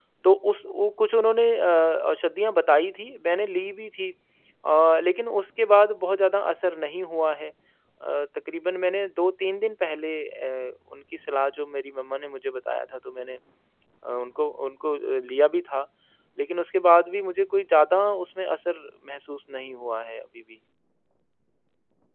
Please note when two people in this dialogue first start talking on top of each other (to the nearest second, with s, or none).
none